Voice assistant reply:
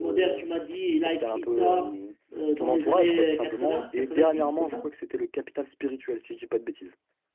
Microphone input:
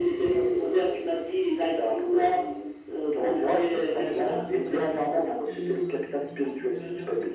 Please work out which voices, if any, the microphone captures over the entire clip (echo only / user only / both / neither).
both